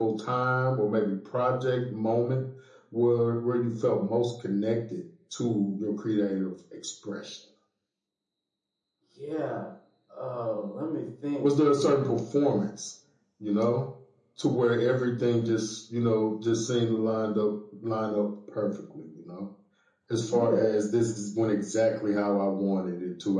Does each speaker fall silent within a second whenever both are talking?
Yes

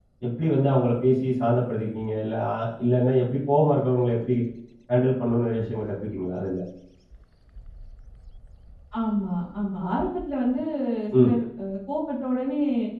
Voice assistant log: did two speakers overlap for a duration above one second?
No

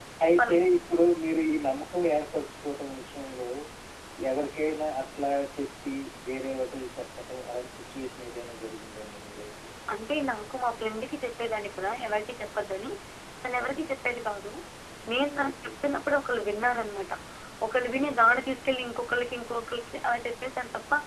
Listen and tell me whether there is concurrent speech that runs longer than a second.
No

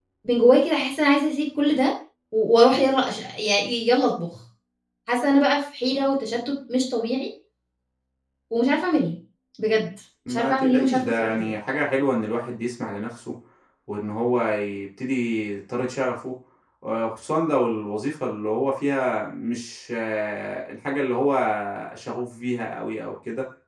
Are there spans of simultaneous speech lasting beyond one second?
Yes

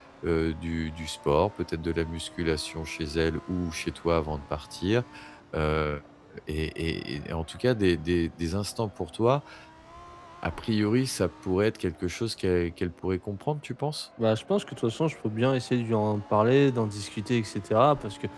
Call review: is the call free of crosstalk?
Yes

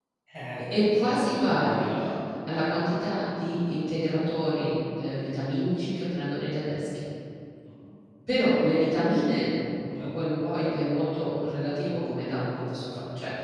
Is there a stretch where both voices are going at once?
Yes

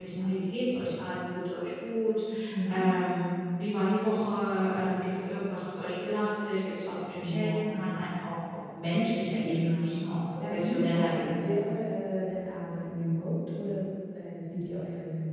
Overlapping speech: Yes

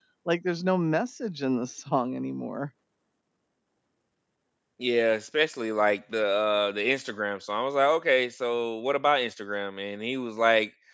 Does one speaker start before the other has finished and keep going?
No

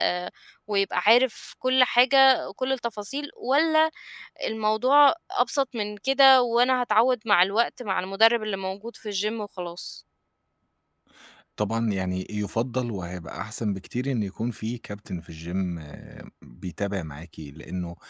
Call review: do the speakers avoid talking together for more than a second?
Yes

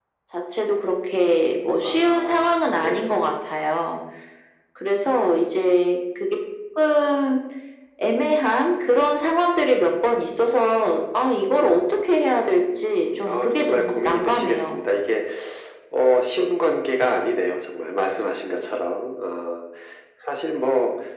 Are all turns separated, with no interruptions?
No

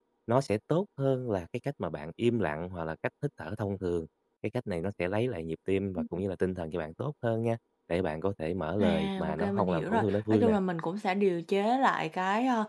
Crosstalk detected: Yes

